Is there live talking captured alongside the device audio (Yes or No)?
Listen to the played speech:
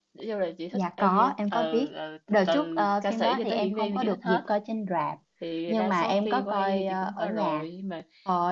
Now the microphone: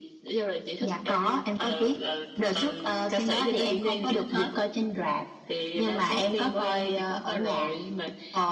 No